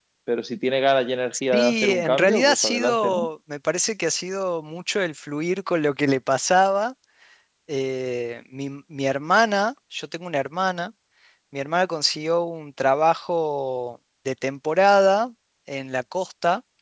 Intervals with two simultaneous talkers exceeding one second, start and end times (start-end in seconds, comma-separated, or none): 1.5-3.3